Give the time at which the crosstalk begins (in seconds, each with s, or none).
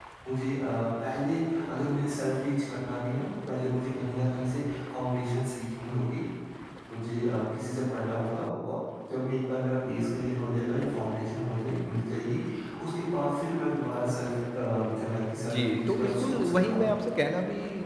15.4 s